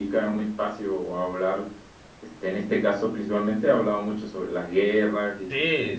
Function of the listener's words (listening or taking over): taking over